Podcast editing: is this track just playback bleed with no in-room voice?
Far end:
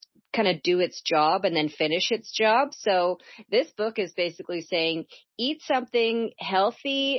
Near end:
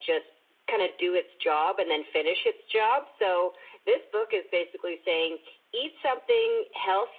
Yes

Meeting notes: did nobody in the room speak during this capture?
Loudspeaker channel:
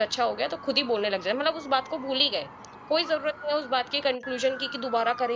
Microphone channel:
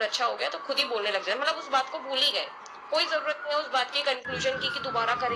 No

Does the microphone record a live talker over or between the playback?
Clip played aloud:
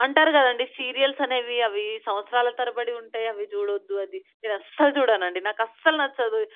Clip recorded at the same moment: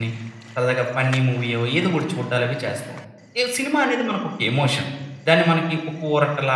Yes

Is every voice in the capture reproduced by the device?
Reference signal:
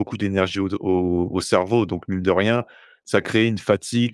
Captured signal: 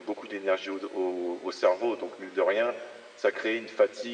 Yes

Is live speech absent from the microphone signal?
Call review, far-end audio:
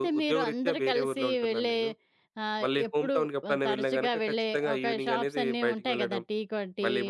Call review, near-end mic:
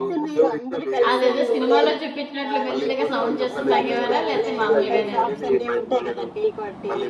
No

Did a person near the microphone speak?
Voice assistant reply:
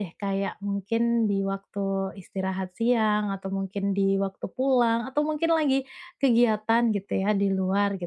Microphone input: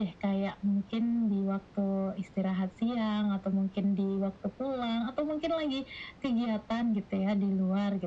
No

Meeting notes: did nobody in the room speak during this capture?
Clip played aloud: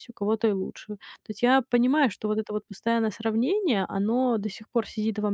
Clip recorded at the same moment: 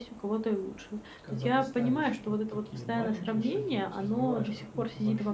No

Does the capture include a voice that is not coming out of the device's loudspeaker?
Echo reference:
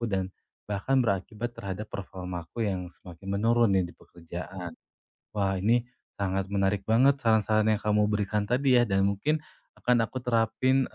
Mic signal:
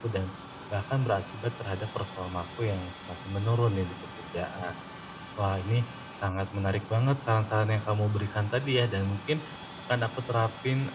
No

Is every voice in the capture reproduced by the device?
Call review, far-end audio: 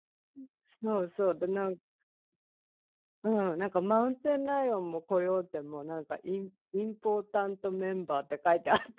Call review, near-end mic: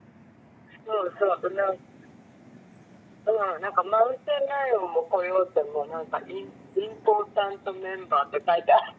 Yes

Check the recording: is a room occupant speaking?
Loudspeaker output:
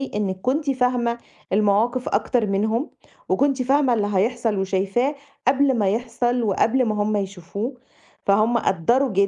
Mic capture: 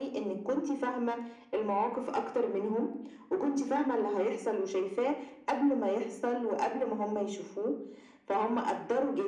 No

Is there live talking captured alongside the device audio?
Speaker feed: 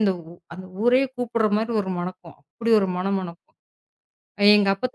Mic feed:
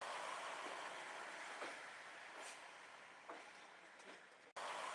No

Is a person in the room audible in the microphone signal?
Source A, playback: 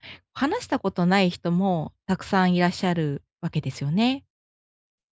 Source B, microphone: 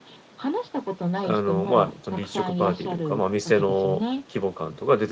Yes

